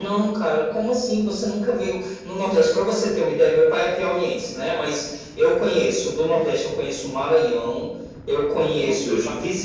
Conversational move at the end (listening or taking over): listening